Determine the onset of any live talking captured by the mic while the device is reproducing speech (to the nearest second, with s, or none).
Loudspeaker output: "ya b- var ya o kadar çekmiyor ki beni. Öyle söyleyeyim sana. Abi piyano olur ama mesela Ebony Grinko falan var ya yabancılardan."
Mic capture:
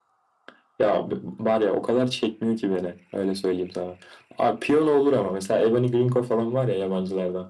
none